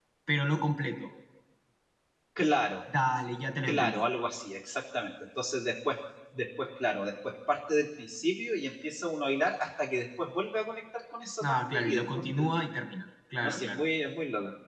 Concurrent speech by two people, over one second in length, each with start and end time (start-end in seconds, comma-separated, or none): 11.4-12.6